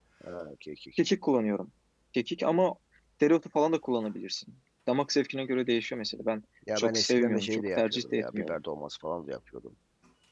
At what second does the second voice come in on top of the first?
6.6 s

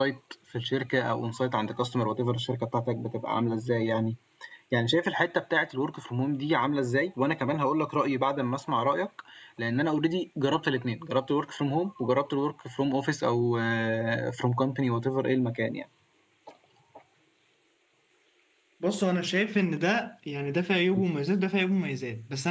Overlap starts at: none

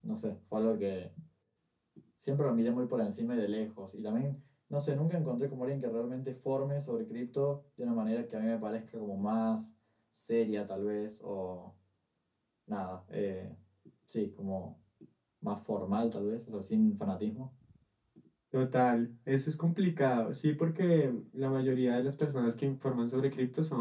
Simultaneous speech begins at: none

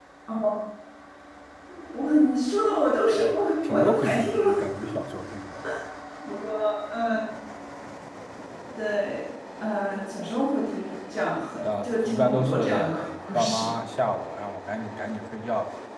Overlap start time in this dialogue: 3.1 s

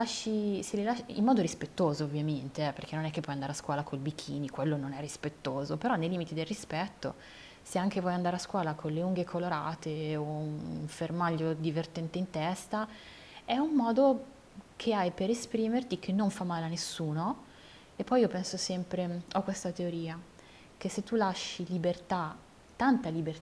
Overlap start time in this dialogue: none

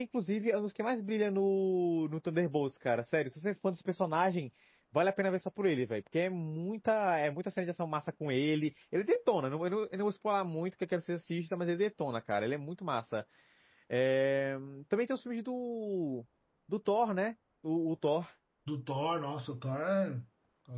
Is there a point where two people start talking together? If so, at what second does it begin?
none

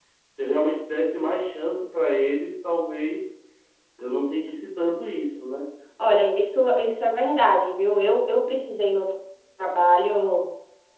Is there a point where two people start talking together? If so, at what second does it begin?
none

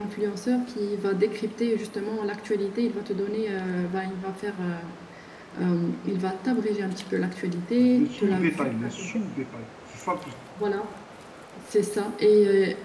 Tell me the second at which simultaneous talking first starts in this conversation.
7.8 s

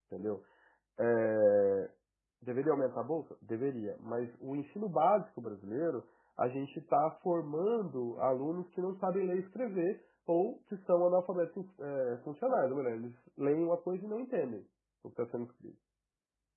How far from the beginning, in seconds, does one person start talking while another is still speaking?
none

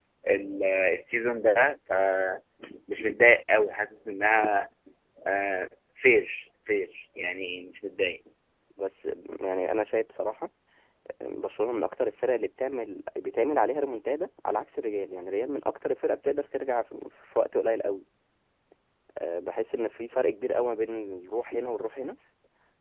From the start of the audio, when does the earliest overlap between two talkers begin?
none

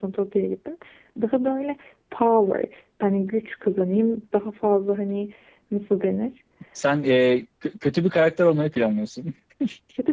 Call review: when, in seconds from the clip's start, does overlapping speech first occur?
none

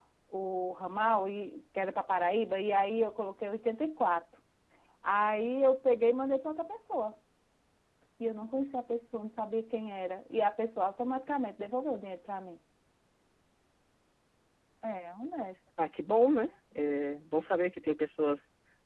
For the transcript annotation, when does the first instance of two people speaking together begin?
none

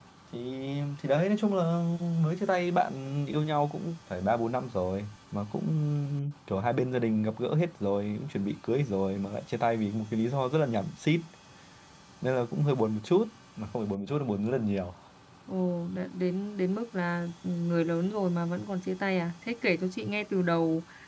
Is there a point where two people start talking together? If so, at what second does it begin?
none

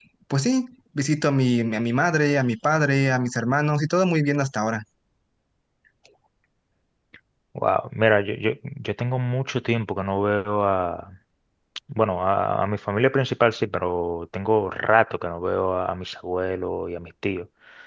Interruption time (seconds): none

